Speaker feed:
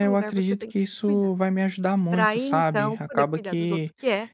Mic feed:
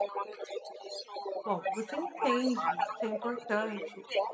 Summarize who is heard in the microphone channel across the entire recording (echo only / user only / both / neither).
both